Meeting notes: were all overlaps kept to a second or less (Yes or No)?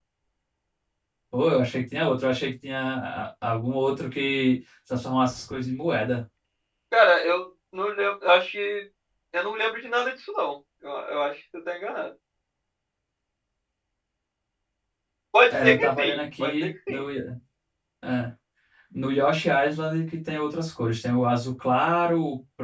No